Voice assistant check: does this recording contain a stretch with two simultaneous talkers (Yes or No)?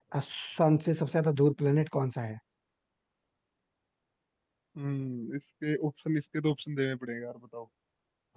No